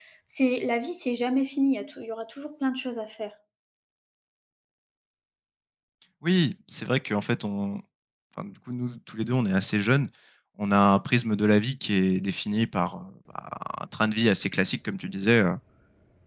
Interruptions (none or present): none